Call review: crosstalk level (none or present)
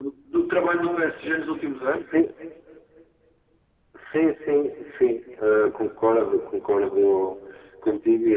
none